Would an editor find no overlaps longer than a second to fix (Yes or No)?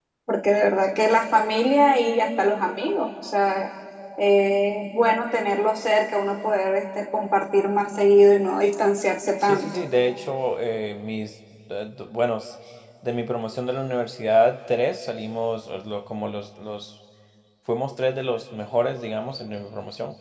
Yes